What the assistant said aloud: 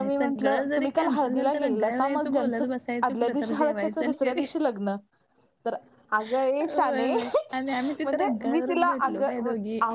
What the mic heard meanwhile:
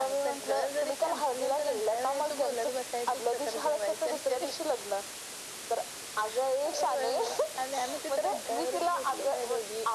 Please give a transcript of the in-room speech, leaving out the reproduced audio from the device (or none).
none